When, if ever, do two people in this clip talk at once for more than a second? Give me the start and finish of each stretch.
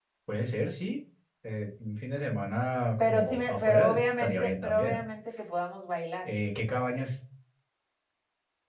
3.0-5.0

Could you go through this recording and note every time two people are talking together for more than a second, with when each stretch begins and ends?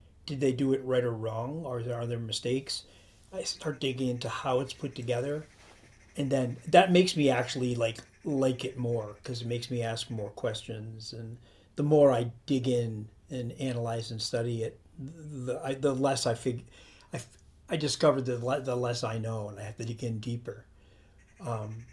none

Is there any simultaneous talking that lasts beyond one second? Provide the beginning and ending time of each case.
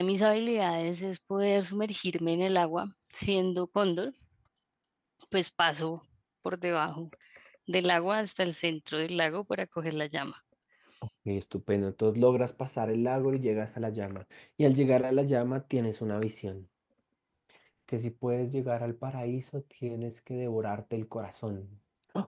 none

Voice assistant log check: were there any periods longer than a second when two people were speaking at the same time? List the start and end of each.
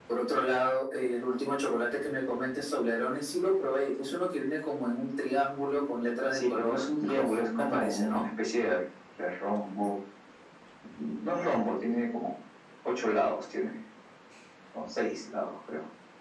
6.3-8.3

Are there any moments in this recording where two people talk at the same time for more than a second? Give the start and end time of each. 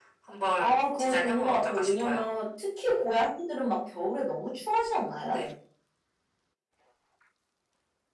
0.6-2.2

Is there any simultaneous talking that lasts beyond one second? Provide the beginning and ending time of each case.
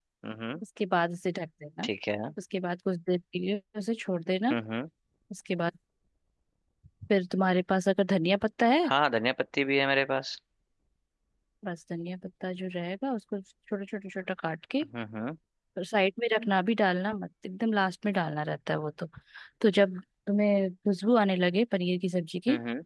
none

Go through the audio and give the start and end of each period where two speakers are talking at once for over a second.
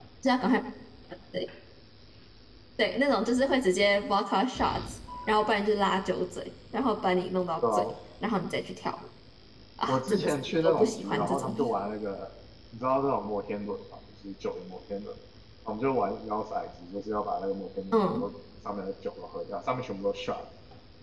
9.9-11.5

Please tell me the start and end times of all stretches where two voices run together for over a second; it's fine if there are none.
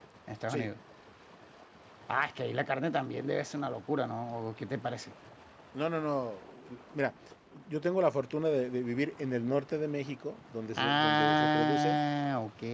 10.8-12.0

